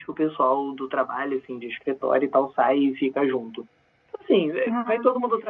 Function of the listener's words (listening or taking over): listening